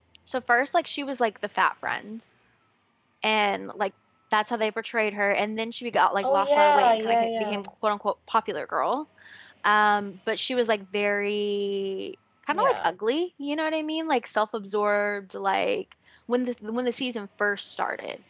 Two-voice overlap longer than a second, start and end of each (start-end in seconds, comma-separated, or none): 6.2-7.6